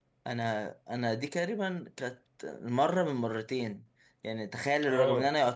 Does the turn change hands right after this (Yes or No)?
No